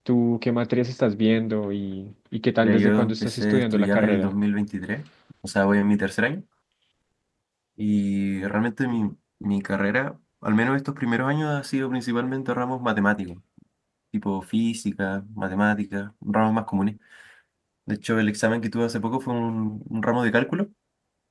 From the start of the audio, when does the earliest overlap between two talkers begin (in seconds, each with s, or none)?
2.6 s